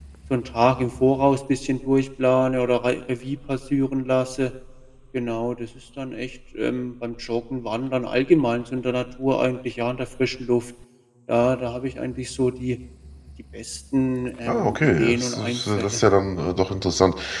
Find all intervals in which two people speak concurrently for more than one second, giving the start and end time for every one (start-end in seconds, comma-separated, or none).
14.5-16.0